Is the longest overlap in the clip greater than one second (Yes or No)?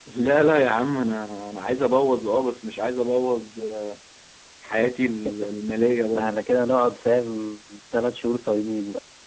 No